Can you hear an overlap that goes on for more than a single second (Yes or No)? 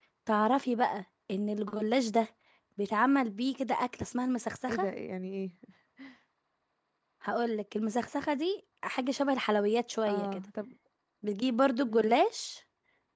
No